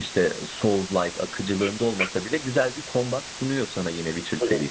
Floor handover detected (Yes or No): Yes